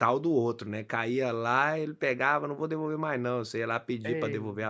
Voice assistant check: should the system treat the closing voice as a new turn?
No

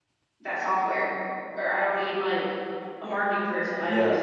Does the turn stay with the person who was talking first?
Yes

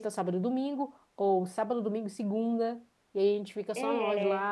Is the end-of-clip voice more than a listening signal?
No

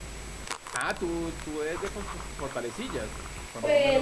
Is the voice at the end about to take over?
Yes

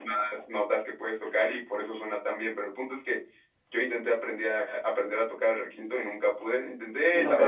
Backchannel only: Yes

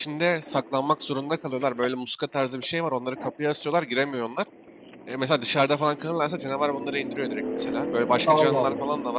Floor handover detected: No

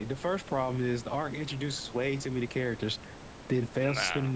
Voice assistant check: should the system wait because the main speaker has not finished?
Yes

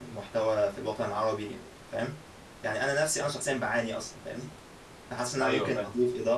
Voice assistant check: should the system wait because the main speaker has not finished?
Yes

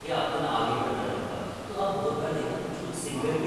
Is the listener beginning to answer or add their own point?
No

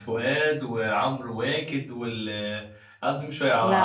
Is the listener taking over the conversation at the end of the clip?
No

